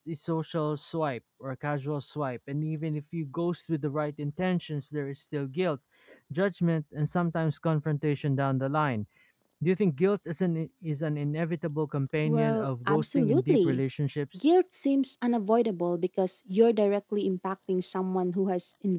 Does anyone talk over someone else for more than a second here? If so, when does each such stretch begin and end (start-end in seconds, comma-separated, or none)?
12.2-13.8